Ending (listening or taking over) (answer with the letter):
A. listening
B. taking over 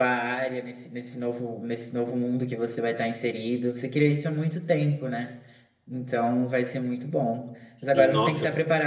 A